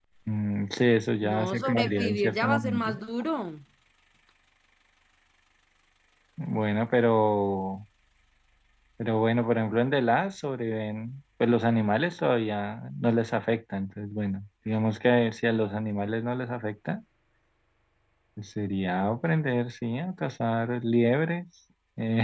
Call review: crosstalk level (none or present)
present